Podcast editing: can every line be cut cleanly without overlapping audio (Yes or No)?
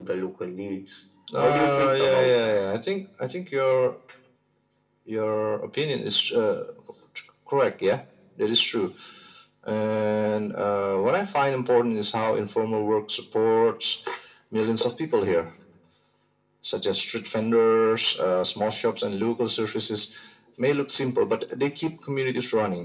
No